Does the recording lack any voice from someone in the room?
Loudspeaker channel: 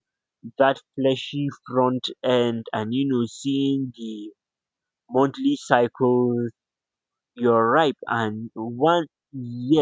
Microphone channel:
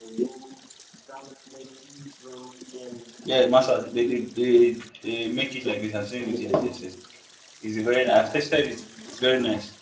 No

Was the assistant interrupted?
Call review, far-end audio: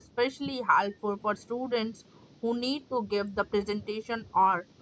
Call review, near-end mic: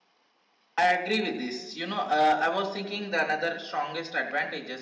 Yes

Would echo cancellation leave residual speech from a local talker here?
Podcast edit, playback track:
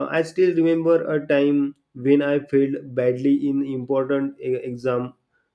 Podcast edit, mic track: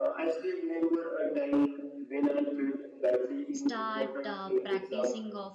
Yes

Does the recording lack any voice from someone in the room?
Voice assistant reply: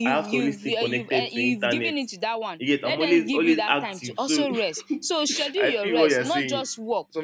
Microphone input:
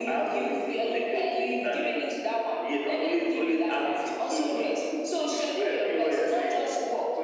Yes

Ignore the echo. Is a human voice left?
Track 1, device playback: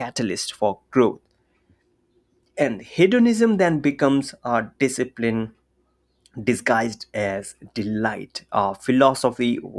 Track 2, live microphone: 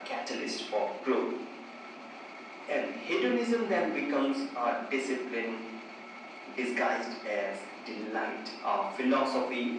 No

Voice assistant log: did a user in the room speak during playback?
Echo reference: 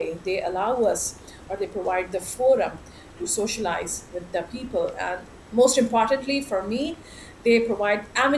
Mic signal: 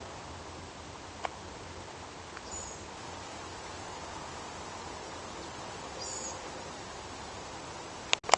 No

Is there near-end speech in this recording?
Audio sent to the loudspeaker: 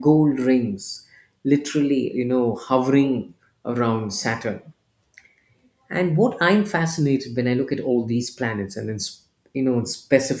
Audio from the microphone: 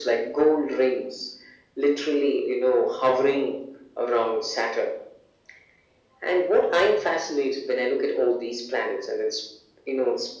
No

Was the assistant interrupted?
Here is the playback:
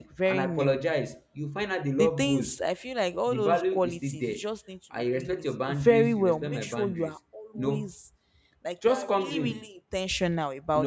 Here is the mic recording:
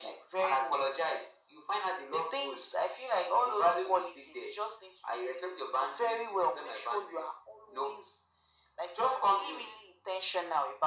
No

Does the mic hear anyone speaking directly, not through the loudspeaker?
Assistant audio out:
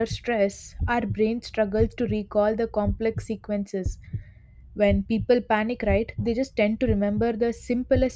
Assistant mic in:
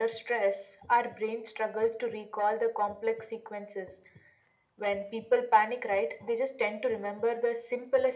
No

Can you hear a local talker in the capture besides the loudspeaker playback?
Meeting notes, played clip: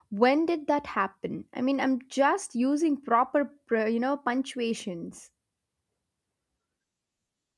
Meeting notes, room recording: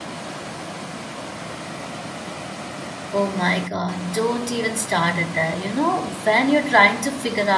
Yes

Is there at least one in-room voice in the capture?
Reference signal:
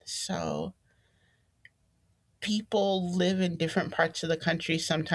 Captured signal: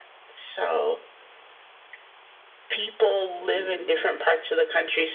Yes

